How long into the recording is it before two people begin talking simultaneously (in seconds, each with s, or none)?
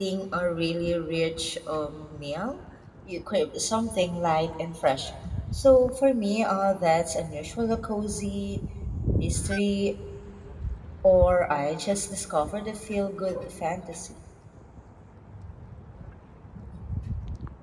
none